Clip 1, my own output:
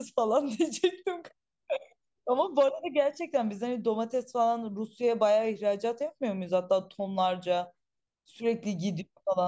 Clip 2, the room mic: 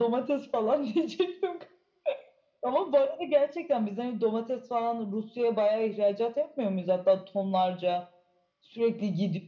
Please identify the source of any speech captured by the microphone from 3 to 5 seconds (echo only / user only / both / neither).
echo only